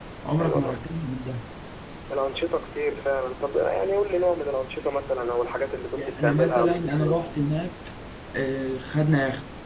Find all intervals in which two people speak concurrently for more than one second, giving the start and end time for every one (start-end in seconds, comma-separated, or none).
5.9-7.2